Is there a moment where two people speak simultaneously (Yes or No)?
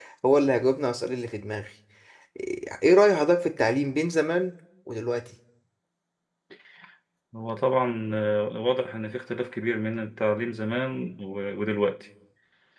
No